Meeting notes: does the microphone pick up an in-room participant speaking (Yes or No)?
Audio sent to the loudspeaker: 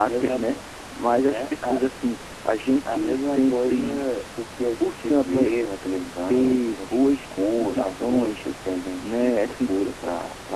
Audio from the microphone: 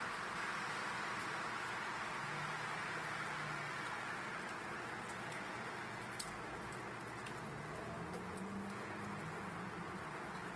No